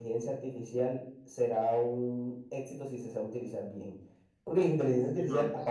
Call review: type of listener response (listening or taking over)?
listening